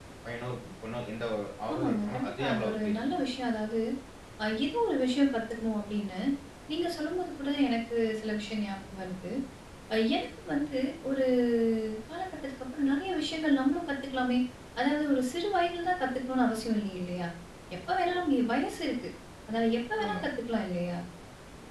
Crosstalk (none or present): present